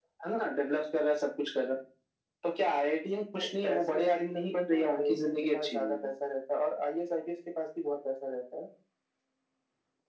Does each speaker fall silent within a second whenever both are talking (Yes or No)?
No